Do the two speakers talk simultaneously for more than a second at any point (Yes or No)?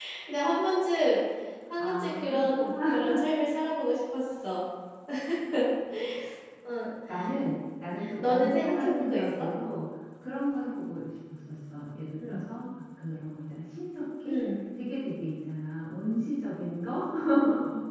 Yes